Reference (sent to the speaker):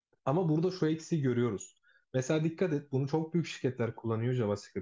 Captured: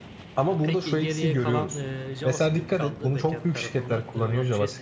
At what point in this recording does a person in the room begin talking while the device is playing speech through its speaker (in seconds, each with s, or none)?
0.5 s